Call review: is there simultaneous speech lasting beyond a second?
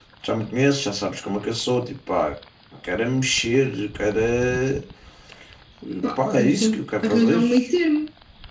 Yes, from 6.2 s

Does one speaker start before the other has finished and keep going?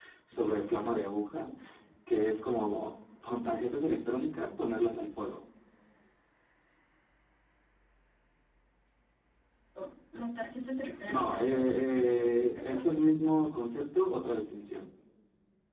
Yes, from 11.1 s

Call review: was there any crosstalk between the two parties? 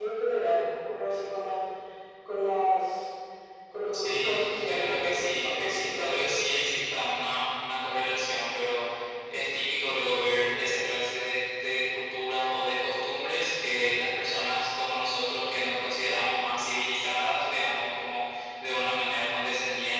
Yes, from 3.9 s

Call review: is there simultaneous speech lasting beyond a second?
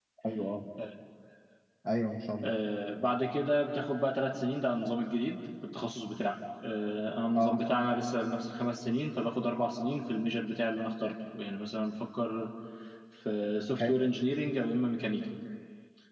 No

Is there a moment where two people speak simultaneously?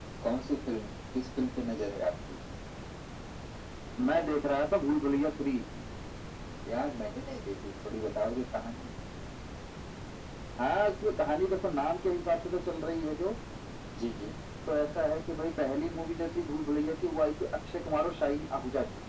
No

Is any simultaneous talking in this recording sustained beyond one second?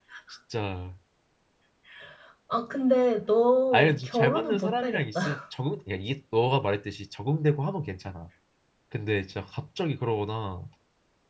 Yes, from 3.7 s

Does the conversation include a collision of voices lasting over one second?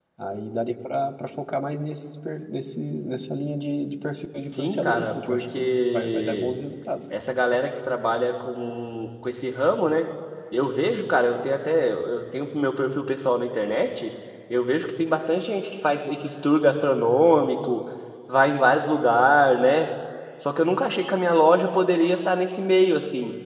Yes, from 4.5 s

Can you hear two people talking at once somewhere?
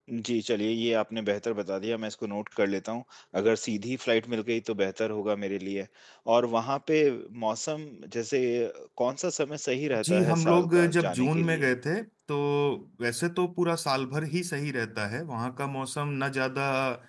Yes, from 10.0 s

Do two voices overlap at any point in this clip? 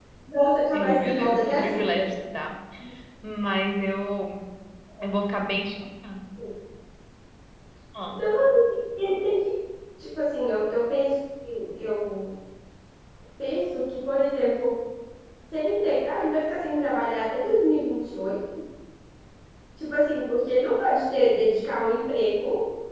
Yes, from 0.7 s

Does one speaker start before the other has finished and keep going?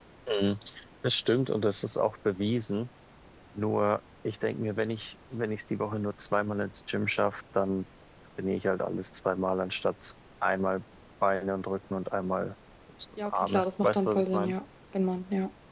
Yes, from 13.2 s

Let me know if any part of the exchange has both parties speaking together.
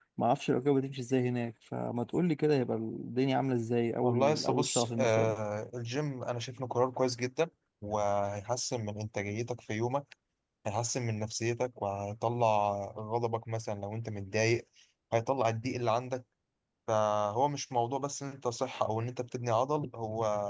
Yes, from 4.0 s

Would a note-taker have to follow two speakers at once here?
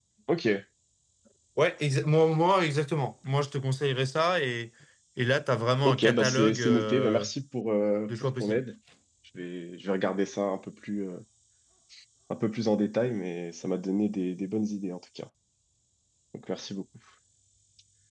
Yes, from 5.8 s

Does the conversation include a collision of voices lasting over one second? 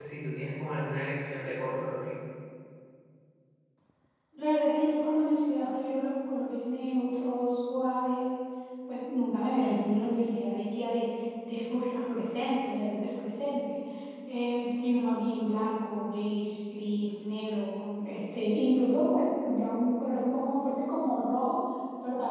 No

